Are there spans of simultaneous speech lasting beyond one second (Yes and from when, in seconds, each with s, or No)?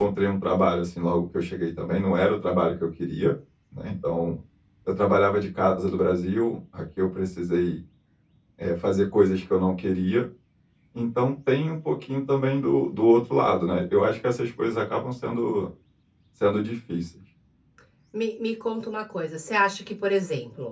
No